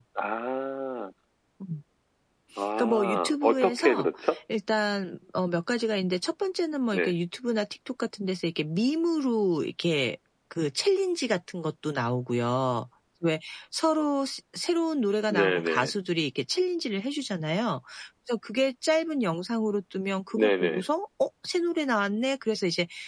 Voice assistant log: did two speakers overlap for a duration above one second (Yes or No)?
Yes